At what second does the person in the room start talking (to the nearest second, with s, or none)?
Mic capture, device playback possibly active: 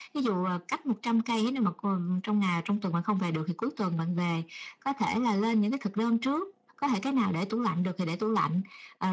none